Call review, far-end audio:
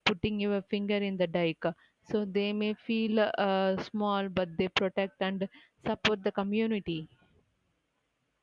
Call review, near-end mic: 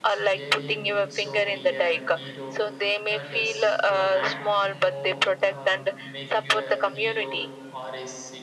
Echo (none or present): present